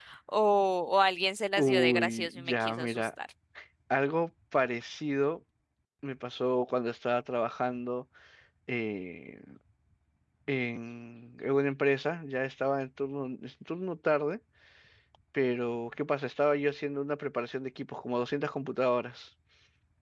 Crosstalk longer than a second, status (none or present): present